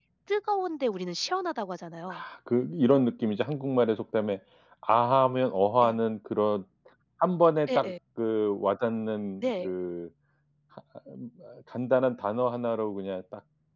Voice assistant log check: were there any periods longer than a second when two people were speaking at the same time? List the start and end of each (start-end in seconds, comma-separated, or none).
none